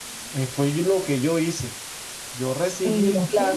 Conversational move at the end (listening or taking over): listening